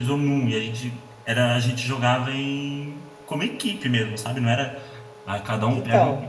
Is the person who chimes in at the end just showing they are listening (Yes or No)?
Yes